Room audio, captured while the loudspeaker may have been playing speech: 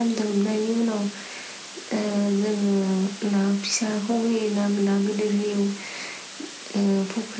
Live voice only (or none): none